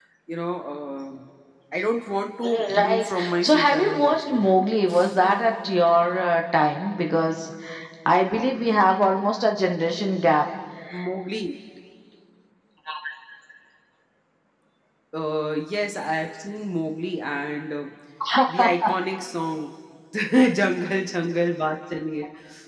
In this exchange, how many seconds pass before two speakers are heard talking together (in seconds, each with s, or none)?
2.4 s